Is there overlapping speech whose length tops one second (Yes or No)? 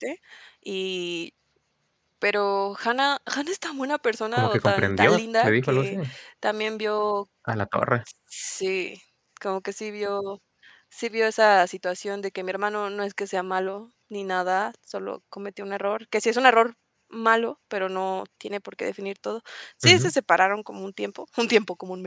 Yes